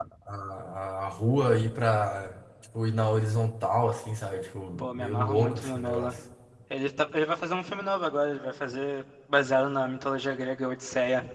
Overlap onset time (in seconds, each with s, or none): 4.8 s